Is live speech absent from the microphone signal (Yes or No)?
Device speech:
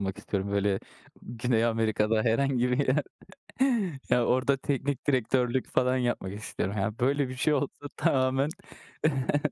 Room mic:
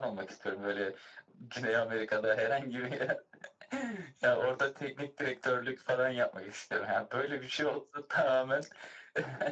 Yes